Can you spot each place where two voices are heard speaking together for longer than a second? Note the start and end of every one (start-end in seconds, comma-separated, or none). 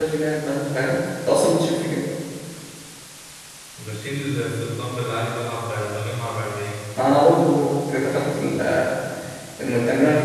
none